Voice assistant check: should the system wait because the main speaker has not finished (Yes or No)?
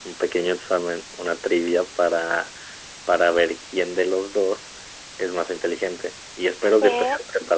Yes